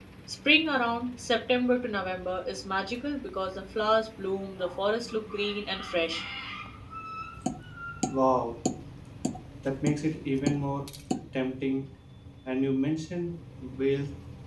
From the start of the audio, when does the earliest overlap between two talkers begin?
none

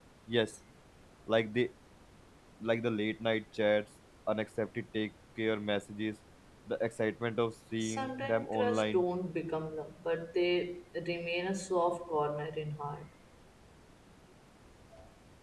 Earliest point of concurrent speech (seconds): 7.8 s

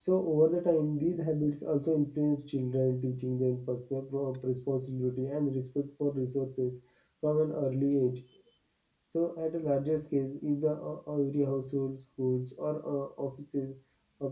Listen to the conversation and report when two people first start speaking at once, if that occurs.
none

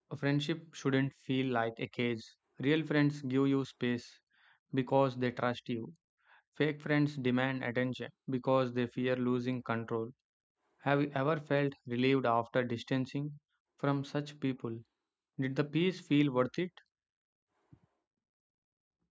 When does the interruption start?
none

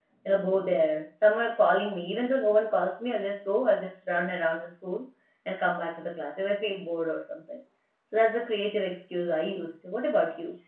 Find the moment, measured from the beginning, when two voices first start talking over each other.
none

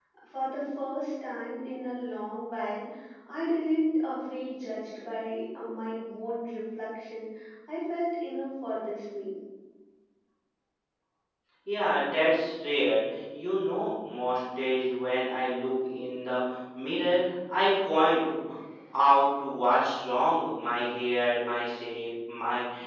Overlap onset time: none

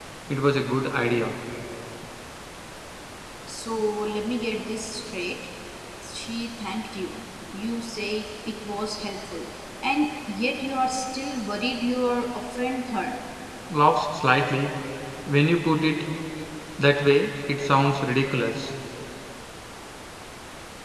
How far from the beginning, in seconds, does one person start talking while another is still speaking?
none

